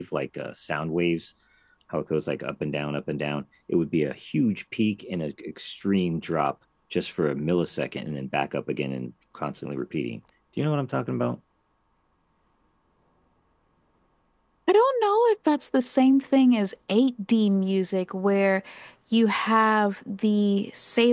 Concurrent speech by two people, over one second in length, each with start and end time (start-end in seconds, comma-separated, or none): none